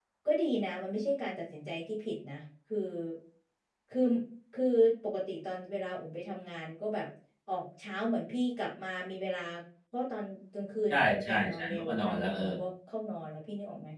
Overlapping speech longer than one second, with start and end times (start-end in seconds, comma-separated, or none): 10.9-12.4